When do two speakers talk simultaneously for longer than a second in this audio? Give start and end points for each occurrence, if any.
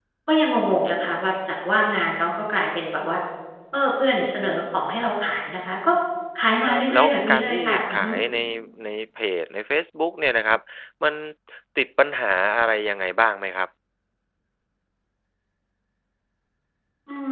6.6-8.1

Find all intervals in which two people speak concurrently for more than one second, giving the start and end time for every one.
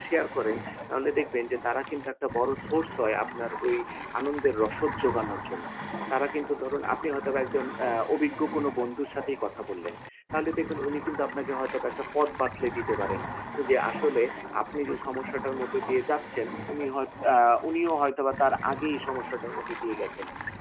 none

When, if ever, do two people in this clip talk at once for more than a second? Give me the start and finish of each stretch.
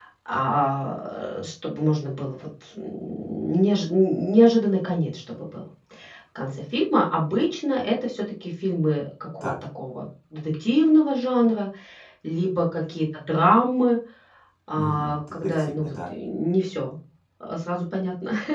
14.8-16.1

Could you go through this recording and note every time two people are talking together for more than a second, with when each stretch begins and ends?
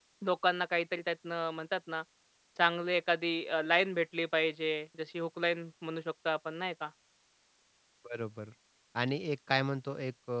none

